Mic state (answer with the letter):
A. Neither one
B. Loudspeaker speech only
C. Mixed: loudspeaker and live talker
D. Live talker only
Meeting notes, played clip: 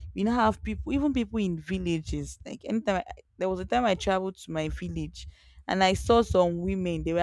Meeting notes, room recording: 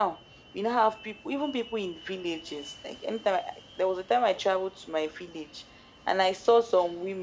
B